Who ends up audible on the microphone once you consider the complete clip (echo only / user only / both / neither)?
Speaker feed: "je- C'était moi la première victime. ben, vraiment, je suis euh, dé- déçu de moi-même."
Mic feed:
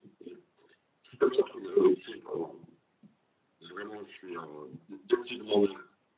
echo only